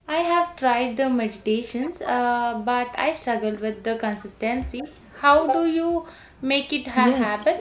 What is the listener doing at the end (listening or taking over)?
taking over